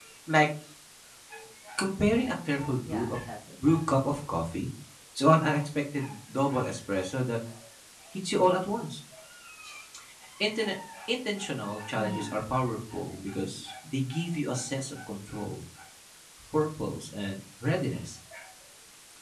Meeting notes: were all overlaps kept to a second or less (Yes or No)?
Yes